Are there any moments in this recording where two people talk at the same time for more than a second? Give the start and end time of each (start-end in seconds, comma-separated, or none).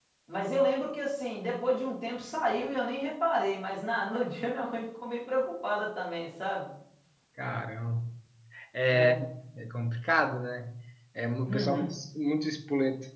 none